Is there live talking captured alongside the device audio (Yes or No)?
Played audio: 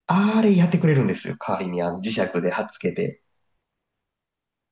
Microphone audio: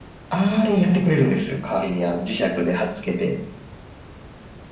No